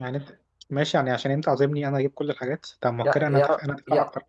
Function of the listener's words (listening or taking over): taking over